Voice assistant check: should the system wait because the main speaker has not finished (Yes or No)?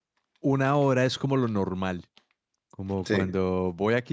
Yes